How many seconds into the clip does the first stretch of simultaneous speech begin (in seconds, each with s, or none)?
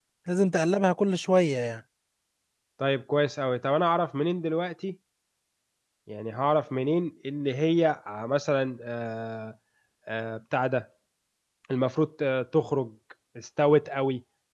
none